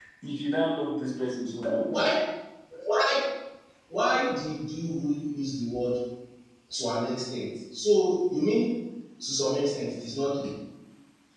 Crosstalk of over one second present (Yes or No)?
No